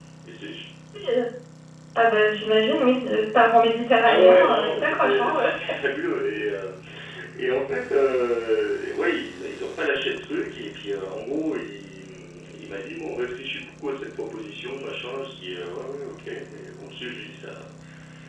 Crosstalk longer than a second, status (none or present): present